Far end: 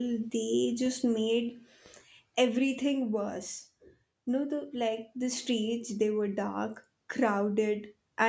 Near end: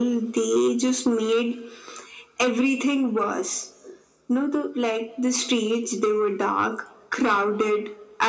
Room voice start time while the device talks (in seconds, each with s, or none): none